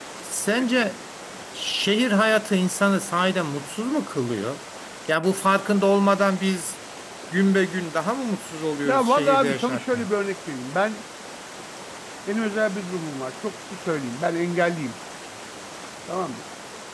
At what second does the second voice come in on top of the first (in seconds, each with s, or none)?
8.8 s